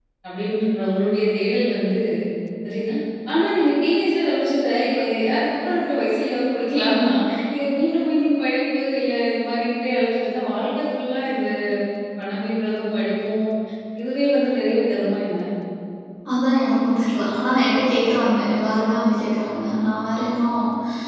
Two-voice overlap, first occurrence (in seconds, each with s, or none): none